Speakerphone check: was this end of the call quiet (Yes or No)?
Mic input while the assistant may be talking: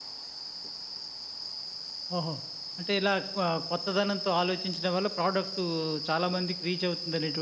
No